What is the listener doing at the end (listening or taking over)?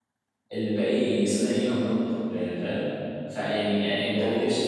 listening